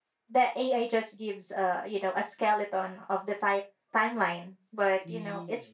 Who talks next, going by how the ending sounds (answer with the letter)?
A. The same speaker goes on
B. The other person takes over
A